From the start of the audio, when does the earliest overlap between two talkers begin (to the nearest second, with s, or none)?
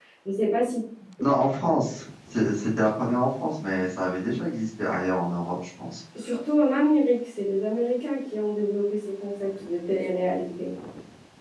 none